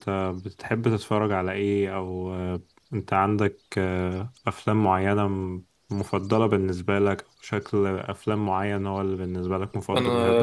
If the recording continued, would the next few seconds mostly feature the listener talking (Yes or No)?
Yes